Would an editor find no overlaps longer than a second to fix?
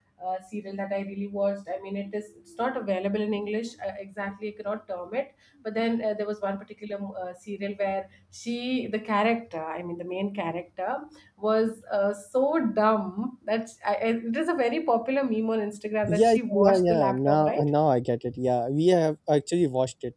No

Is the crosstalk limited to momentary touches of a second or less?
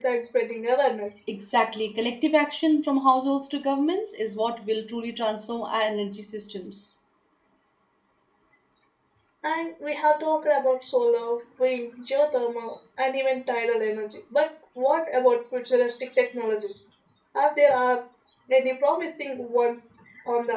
Yes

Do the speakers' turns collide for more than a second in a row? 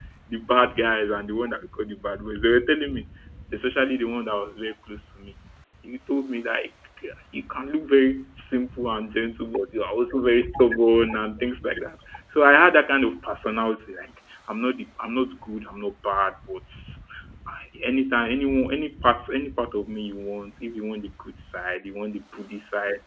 No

